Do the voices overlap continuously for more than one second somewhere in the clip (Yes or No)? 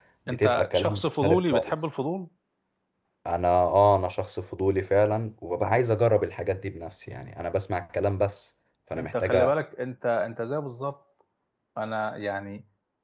Yes